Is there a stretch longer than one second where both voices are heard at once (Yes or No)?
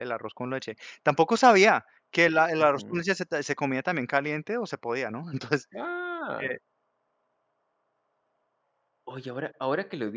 No